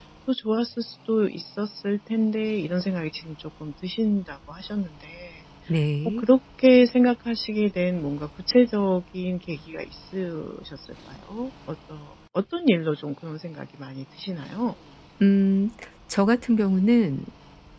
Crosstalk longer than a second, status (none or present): none